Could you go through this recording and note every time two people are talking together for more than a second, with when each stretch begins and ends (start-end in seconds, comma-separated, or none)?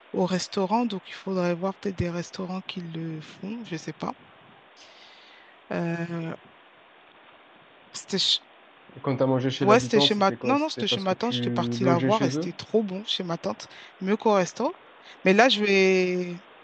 9.6-12.5